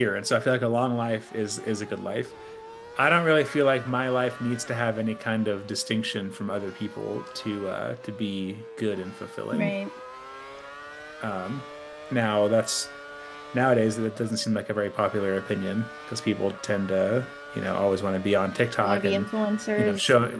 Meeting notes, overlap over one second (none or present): none